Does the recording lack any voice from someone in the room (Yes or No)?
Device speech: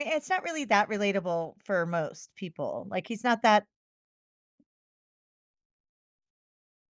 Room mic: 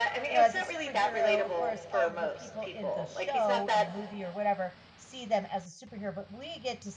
No